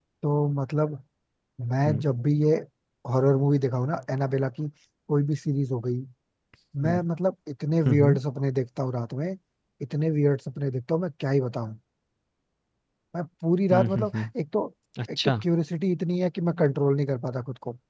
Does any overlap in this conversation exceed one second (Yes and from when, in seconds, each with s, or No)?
No